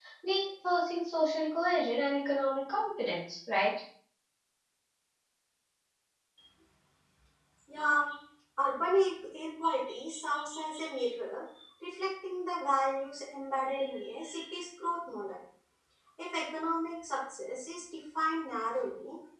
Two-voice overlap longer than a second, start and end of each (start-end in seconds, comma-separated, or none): none